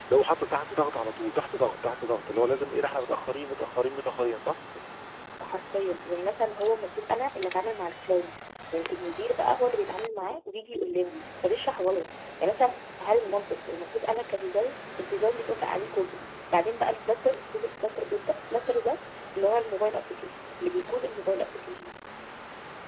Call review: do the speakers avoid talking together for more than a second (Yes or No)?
Yes